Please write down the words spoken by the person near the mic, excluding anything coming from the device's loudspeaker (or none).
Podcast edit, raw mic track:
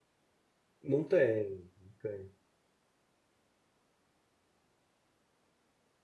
Não tem, não tem.